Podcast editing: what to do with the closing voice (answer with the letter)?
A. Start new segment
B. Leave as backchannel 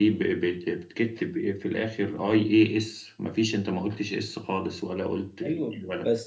A